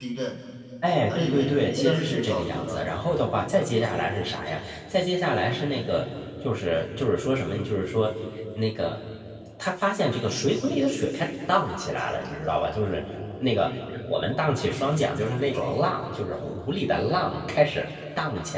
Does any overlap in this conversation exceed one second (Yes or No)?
Yes